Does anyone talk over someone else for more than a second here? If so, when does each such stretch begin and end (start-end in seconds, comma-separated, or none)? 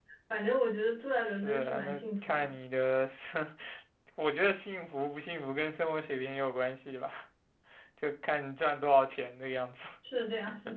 1.3-2.5